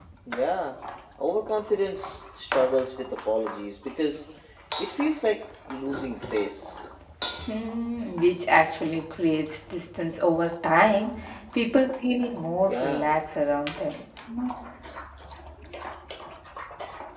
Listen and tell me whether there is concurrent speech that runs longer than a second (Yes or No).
No